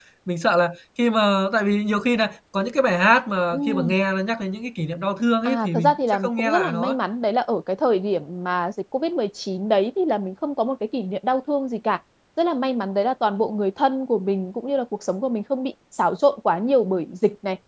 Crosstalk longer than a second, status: present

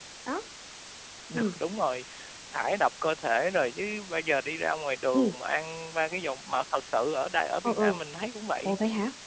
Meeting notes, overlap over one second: none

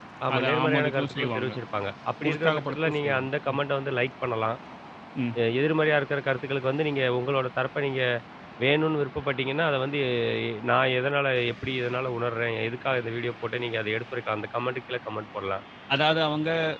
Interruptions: present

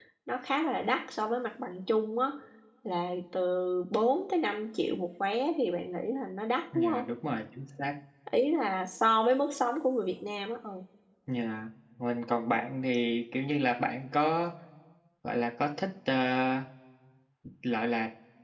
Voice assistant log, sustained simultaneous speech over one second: none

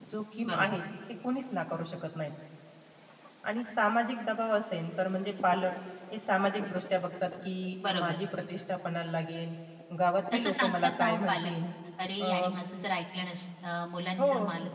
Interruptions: present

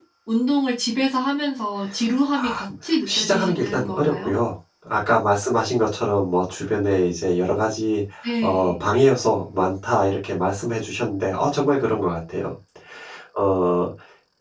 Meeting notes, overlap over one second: present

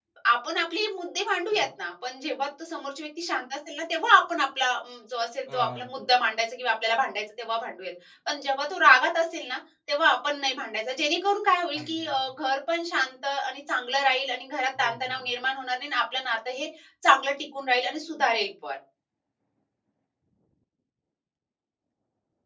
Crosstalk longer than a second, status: none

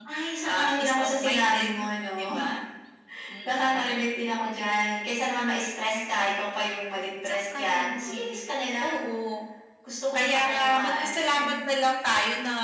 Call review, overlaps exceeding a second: present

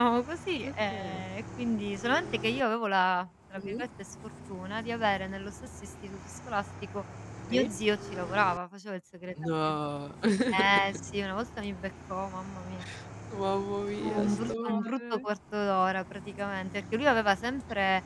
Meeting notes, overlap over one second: present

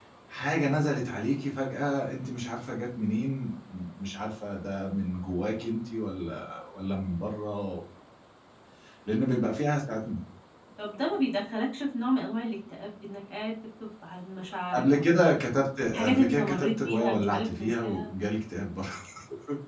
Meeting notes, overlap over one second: present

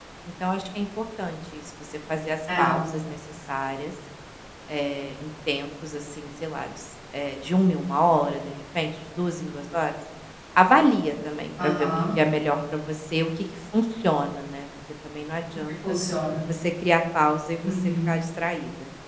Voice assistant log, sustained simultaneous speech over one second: none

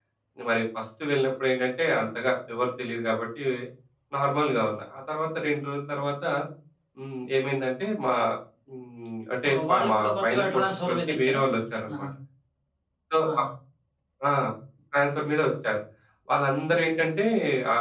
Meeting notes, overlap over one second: present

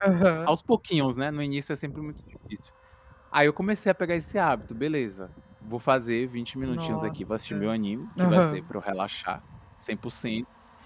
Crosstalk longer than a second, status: none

